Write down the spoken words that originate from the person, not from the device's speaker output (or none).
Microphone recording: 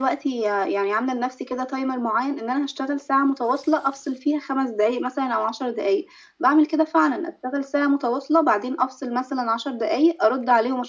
none